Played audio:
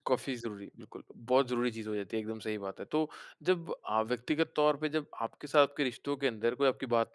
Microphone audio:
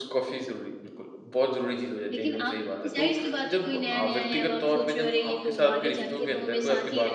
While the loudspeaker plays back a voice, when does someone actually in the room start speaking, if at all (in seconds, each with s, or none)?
2.1 s